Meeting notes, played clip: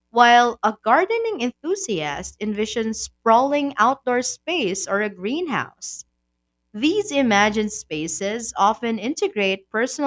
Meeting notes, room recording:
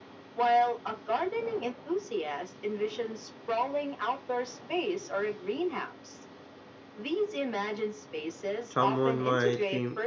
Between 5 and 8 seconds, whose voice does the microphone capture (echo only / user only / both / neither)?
echo only